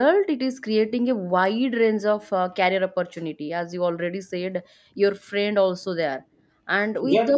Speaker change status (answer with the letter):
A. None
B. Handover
A